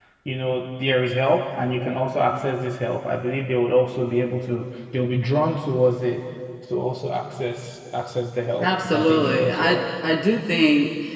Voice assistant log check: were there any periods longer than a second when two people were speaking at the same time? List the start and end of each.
8.6-9.8

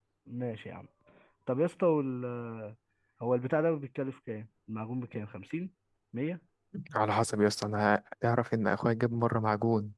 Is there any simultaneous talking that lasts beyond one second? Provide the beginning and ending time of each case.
none

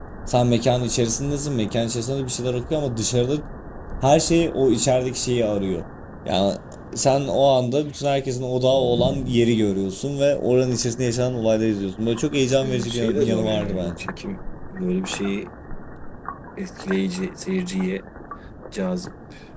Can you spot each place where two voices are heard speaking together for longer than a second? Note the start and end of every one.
12.6-13.9

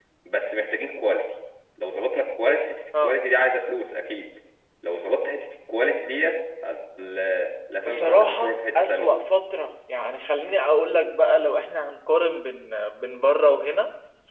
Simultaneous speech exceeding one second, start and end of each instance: 7.8-9.1

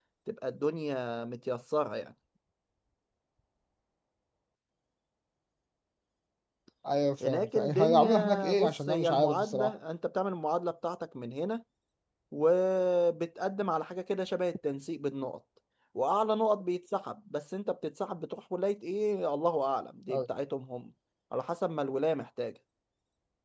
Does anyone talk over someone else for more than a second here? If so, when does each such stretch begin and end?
7.2-9.7

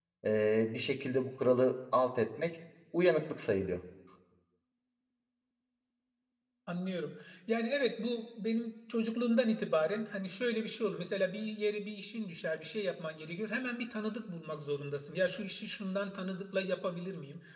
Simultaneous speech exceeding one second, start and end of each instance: none

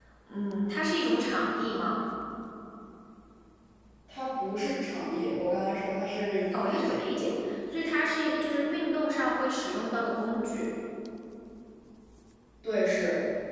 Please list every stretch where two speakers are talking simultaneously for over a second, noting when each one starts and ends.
none

